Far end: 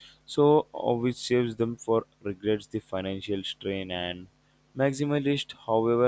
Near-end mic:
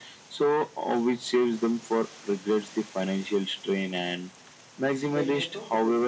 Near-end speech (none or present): present